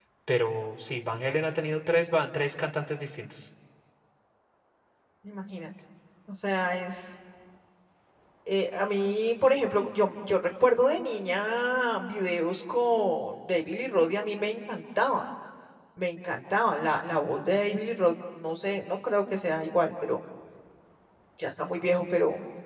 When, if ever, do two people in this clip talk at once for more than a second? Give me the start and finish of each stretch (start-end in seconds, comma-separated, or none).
none